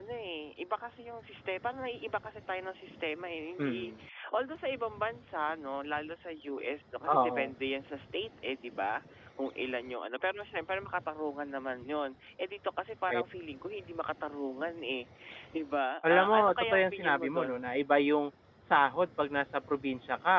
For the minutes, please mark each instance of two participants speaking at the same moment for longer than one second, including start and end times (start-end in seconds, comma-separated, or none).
16.1-17.6